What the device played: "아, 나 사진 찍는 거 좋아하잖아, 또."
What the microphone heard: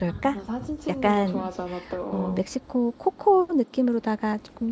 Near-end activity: present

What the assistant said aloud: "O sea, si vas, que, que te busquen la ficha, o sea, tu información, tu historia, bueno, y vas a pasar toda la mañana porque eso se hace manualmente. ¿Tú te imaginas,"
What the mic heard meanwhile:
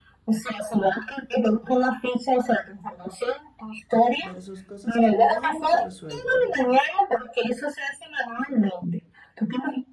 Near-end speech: present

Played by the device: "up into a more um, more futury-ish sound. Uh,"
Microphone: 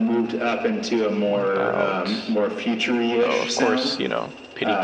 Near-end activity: present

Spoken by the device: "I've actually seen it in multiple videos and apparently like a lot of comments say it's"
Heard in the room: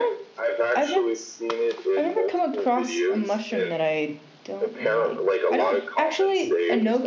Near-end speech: present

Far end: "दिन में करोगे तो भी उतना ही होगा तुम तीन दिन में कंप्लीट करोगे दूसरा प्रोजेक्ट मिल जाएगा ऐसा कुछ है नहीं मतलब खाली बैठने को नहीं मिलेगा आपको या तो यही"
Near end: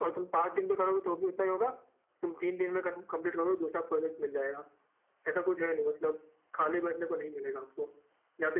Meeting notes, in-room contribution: none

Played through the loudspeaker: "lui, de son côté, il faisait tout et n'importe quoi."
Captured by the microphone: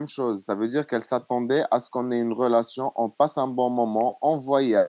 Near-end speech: present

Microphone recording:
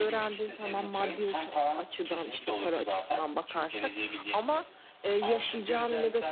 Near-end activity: present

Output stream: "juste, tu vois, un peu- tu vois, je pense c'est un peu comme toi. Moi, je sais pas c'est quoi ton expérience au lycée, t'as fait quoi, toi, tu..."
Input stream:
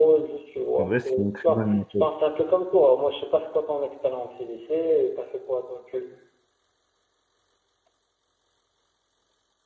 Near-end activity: present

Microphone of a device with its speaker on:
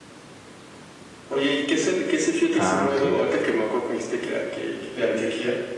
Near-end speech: present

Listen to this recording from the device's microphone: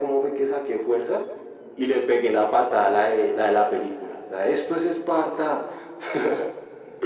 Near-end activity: none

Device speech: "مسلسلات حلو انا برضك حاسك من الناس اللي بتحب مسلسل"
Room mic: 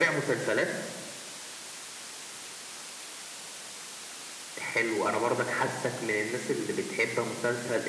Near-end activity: none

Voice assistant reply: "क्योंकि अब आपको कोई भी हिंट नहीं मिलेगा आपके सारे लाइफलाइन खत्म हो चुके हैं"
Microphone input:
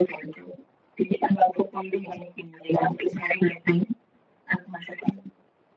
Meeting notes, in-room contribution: none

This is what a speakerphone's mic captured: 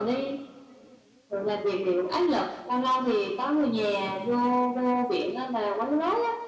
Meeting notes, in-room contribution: none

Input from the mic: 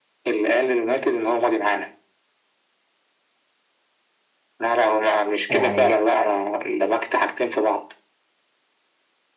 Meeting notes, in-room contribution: present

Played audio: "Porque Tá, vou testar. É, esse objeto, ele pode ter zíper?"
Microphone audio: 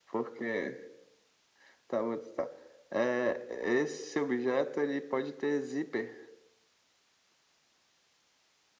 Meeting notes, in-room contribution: none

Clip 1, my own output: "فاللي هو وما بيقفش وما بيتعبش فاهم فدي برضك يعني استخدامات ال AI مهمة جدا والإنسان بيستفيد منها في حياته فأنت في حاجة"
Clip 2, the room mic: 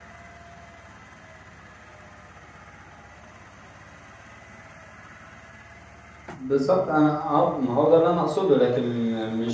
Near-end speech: present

